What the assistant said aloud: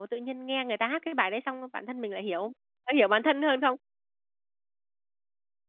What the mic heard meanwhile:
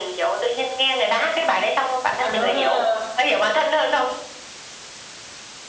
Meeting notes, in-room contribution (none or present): present